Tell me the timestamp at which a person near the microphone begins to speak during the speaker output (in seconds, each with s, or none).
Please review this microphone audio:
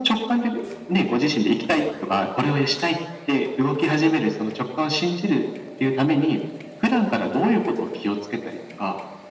none